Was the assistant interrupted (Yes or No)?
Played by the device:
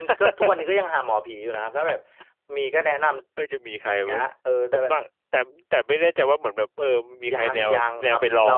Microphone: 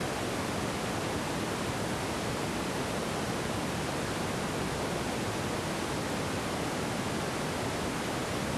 No